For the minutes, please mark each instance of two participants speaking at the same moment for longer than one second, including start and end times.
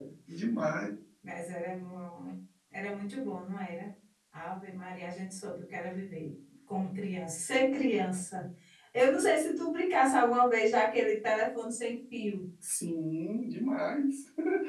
none

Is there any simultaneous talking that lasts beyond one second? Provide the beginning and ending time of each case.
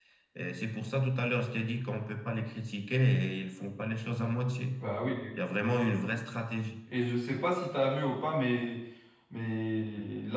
none

